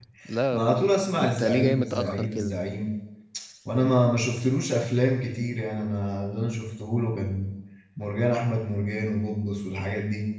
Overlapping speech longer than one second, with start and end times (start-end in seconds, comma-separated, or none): 0.5-2.5